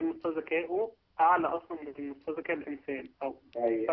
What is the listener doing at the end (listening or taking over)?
listening